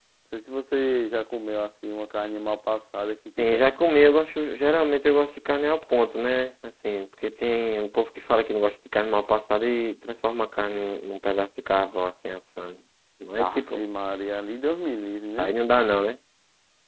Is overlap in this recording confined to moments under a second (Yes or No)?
Yes